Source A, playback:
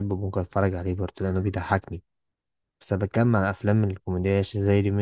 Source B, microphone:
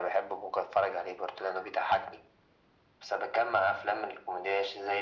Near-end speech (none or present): none